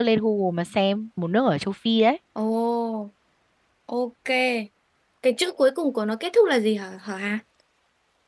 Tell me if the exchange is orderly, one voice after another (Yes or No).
Yes